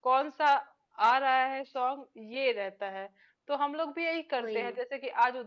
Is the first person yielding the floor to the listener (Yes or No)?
No